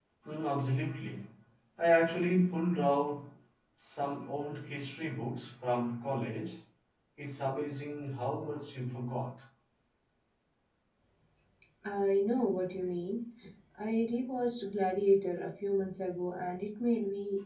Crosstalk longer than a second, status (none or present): none